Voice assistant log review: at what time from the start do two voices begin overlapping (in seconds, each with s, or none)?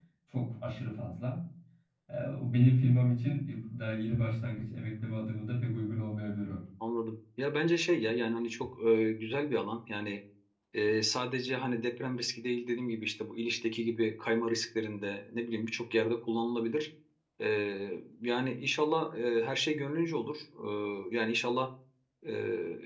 none